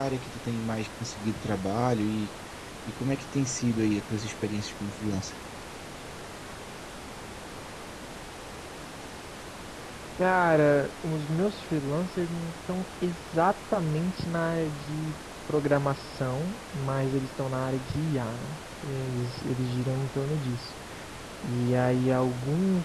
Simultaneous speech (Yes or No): No